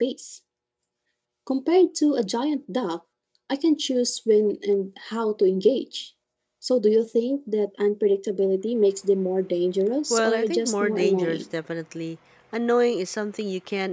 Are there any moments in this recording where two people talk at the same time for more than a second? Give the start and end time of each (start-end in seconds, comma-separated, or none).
10.1-11.4